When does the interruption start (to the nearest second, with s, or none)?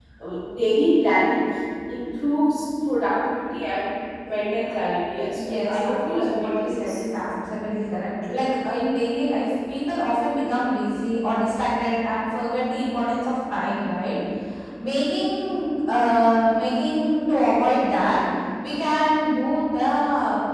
5 s